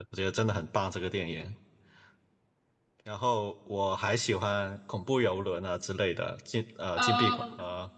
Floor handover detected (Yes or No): No